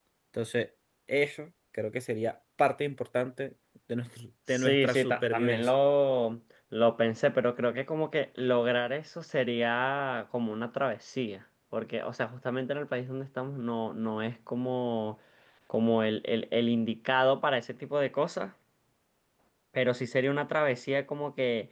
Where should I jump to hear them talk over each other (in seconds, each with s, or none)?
4.5 s